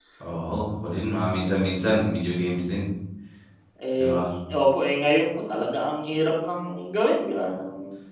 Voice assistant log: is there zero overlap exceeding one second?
Yes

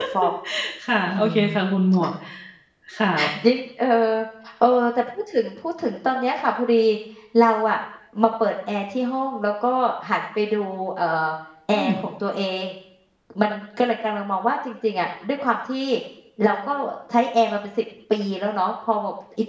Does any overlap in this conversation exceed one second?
No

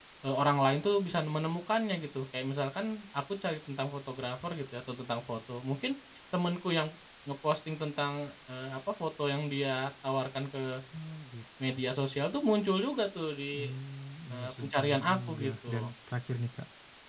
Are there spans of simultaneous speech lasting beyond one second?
Yes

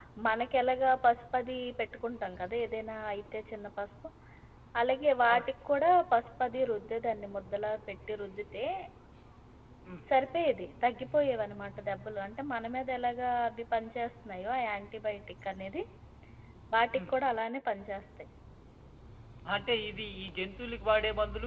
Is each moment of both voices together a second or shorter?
Yes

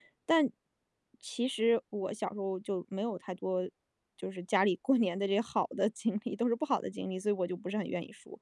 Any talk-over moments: No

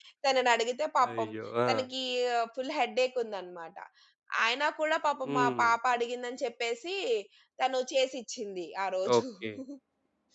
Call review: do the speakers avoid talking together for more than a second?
Yes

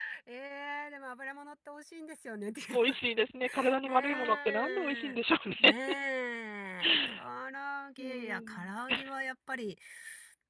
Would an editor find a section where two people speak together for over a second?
Yes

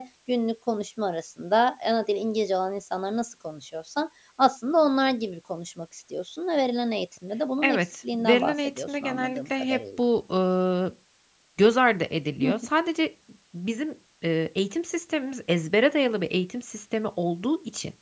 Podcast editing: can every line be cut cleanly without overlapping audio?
No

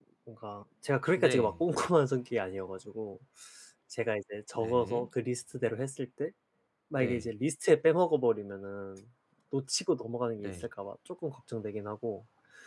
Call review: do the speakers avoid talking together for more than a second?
Yes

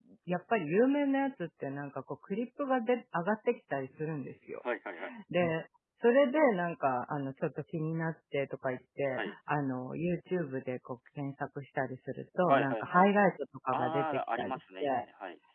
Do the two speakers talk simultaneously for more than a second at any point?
Yes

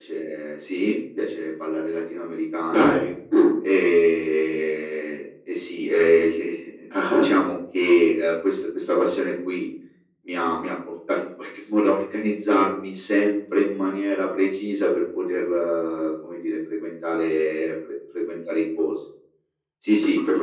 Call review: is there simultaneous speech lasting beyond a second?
No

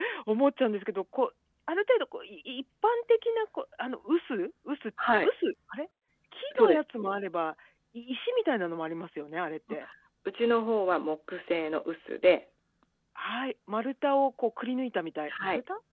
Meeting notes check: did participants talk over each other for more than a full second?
No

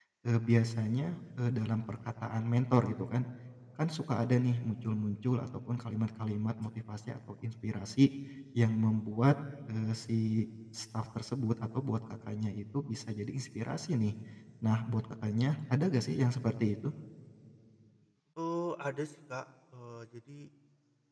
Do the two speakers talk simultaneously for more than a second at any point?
No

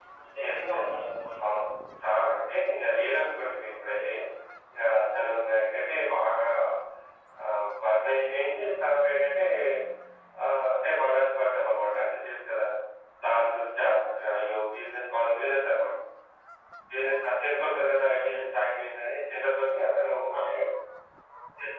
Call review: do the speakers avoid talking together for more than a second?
Yes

